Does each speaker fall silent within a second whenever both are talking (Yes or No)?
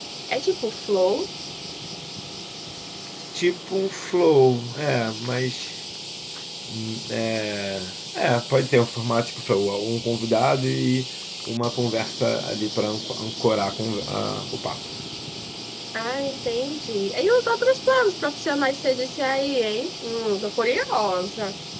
Yes